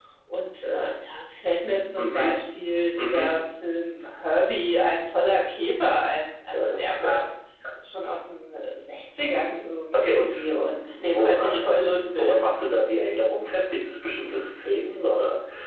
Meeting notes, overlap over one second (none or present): present